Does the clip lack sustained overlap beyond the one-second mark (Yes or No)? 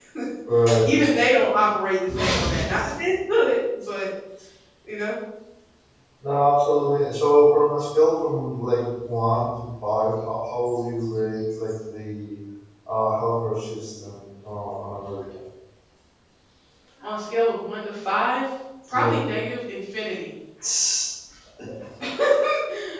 Yes